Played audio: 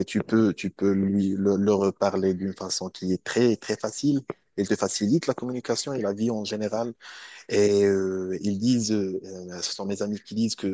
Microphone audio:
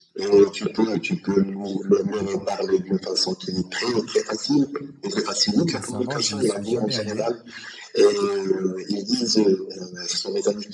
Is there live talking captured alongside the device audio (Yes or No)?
Yes